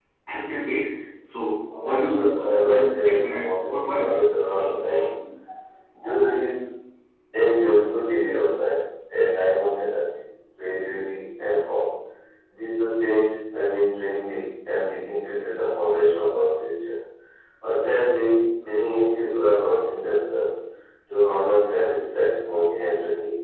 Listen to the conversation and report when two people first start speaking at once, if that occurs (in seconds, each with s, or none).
1.7 s